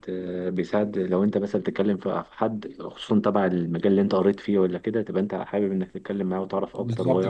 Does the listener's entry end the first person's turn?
Yes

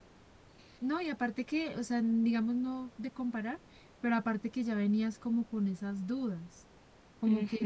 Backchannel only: Yes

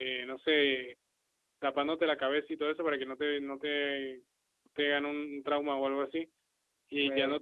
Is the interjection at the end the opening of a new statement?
No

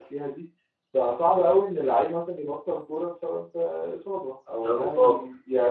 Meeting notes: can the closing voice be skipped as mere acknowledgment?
Yes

